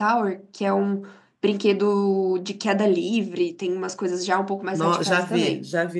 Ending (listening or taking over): taking over